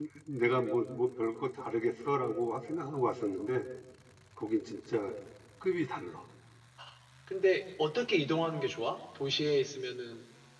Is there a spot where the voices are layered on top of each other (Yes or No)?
No